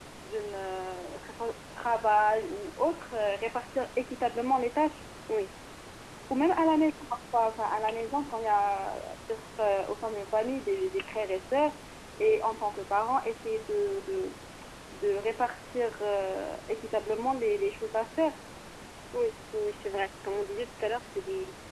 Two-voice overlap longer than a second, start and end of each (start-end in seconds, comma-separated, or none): none